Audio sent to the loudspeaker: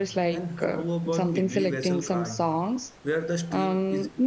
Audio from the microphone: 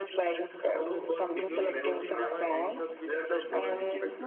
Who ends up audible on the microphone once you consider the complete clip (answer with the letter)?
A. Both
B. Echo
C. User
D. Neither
A